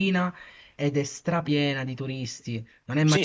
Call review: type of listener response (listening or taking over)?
taking over